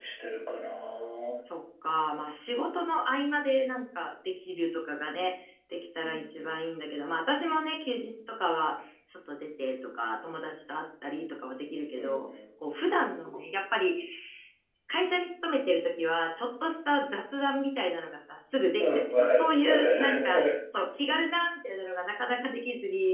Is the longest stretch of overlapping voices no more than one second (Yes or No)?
No